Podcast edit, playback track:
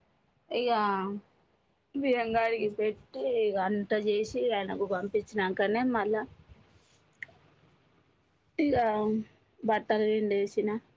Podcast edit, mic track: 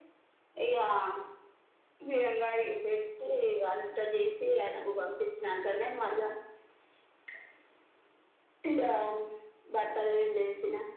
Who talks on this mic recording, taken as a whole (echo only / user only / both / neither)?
echo only